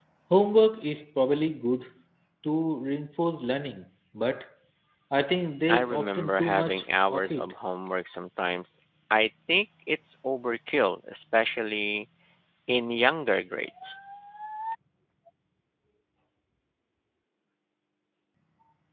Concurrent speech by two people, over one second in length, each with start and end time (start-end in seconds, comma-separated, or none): 5.7-7.5